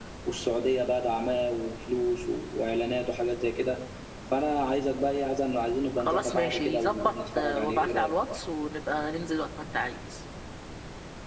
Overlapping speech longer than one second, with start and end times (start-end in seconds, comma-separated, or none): 6.0-8.1